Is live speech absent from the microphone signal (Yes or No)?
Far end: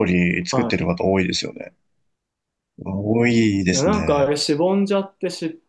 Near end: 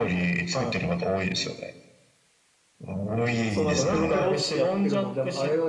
No